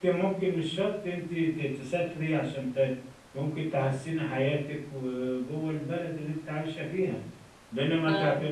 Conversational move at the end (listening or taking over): listening